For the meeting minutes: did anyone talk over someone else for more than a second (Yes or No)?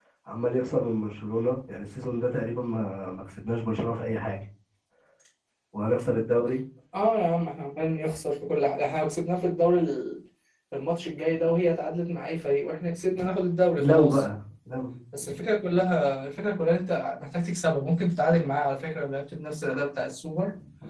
No